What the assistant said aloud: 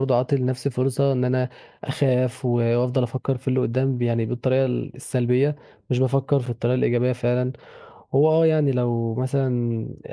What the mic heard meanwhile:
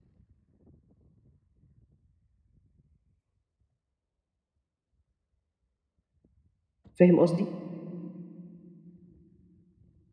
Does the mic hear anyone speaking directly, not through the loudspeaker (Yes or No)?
Yes